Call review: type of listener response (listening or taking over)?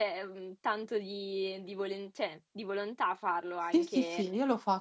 taking over